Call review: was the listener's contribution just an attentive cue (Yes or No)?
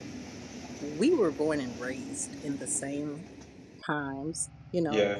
Yes